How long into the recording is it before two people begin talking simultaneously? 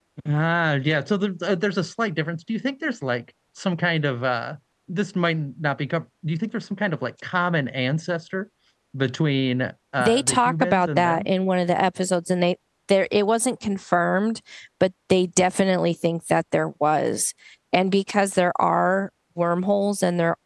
10 s

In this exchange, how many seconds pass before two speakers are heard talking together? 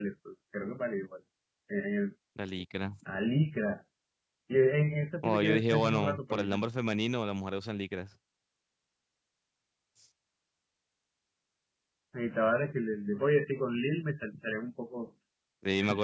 5 s

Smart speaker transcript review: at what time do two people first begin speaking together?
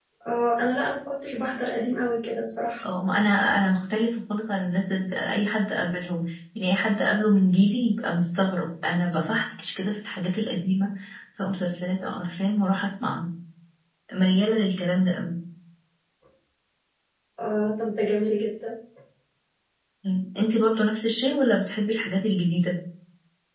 none

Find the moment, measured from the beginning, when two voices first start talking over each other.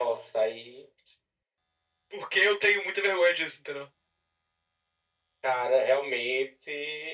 none

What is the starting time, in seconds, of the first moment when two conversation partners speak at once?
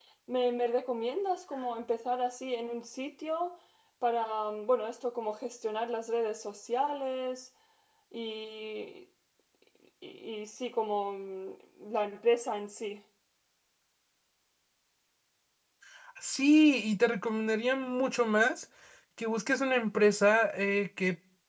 none

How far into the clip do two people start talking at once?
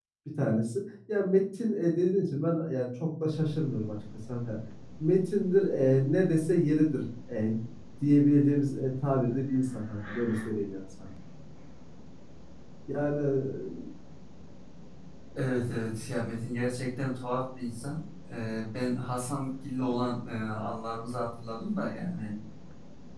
none

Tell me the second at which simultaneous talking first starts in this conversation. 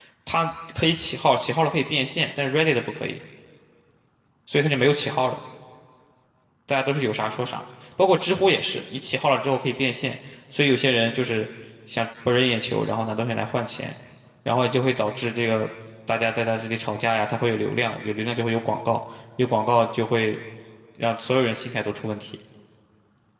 none

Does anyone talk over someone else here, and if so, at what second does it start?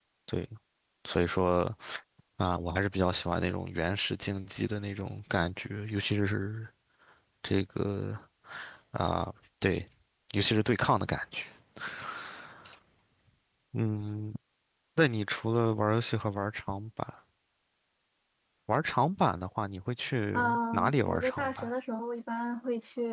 20 s

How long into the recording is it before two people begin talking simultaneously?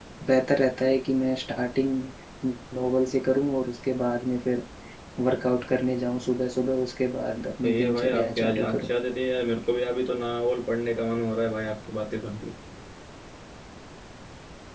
8 s

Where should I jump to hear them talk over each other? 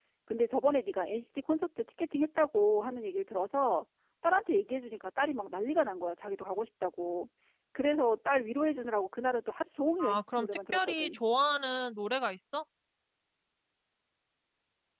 10 s

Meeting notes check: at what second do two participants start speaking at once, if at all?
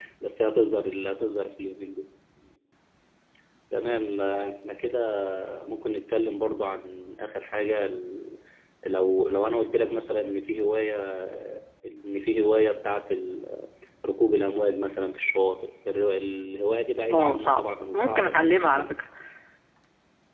17 s

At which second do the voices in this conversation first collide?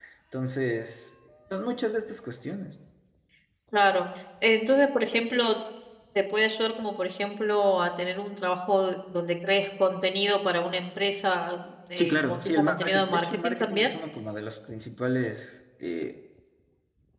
12 s

